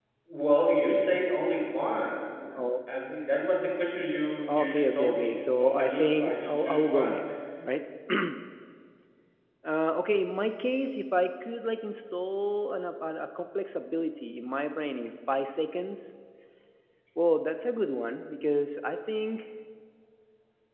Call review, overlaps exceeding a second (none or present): present